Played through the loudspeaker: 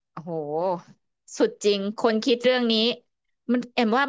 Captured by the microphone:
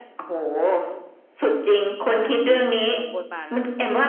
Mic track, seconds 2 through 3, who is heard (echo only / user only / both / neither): both